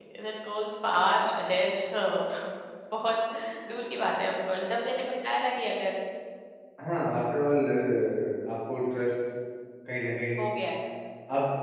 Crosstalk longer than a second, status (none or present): none